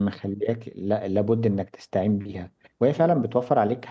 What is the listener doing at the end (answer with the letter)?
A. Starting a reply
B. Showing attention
B